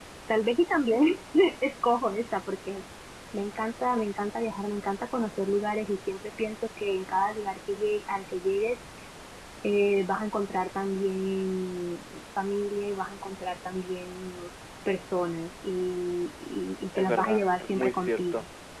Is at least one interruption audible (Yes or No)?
Yes